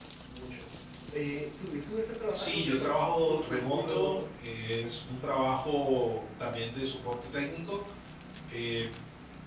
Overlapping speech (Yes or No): Yes